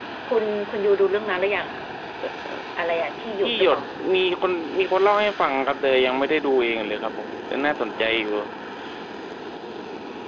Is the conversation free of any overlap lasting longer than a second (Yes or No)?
Yes